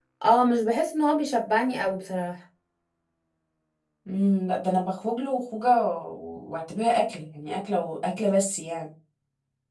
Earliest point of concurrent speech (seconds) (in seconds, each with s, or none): none